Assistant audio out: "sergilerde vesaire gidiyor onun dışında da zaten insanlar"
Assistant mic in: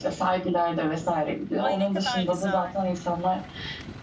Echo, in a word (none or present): present